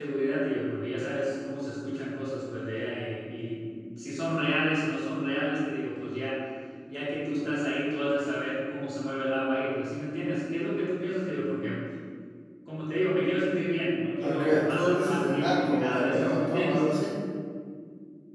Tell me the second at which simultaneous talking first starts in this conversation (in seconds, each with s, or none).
14.2 s